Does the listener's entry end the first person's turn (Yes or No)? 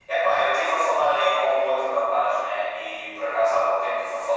No